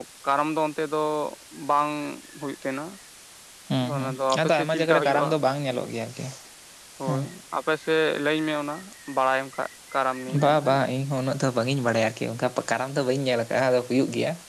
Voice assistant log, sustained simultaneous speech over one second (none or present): present